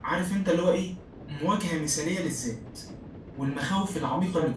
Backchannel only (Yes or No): No